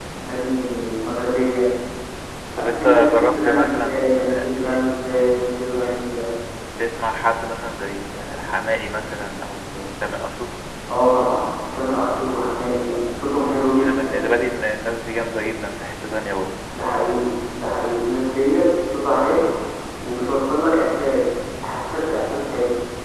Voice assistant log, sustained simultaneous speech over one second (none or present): present